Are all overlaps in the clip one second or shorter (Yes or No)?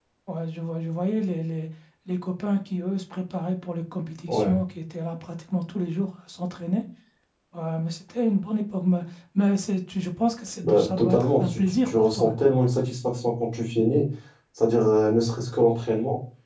No